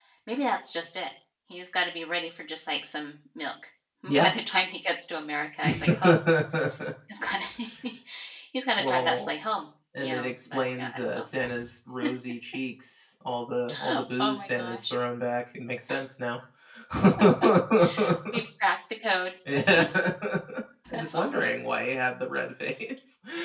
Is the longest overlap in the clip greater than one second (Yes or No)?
Yes